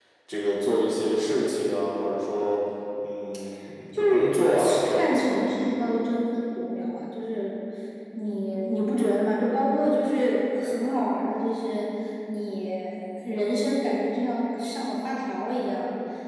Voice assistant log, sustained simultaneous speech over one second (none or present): present